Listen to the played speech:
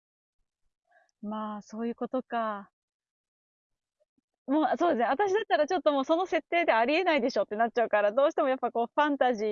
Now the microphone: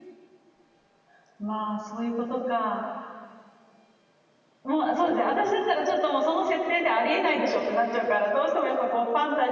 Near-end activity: none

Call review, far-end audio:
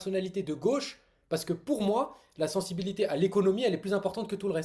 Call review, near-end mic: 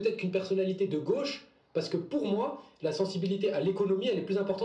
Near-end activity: none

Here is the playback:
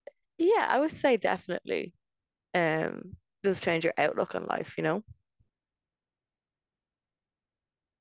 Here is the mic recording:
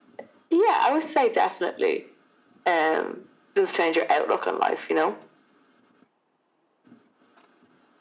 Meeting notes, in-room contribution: none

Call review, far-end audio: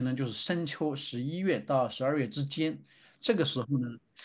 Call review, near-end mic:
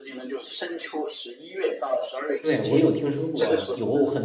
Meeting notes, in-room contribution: present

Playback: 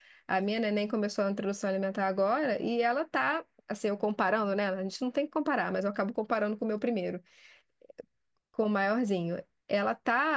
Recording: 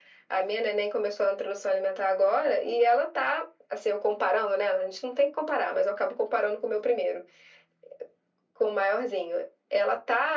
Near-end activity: none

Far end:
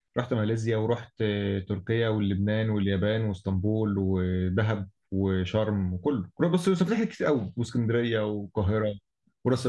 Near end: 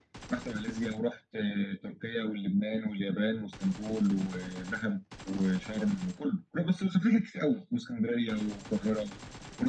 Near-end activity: none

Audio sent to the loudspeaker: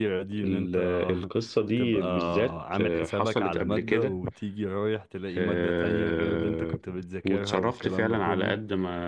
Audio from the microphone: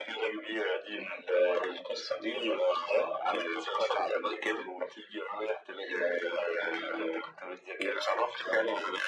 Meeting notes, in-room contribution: none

